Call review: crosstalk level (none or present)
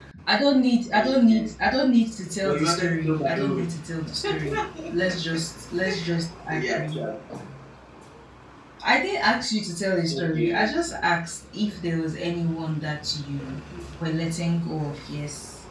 present